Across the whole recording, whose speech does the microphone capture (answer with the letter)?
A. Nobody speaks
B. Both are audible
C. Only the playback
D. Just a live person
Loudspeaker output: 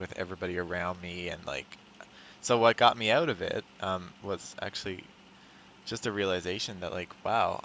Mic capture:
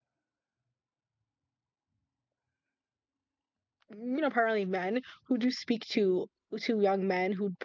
D